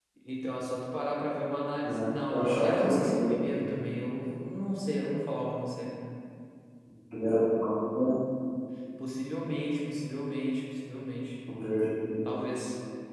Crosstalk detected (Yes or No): Yes